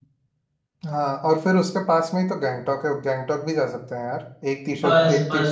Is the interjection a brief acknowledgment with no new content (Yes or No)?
No